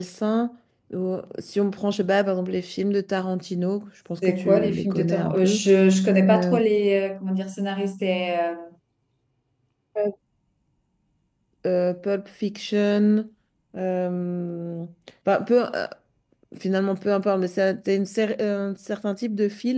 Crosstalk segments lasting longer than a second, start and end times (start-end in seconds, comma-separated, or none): 4.2-5.6